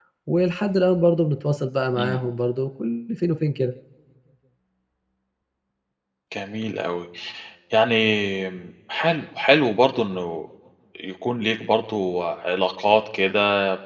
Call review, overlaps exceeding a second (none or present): none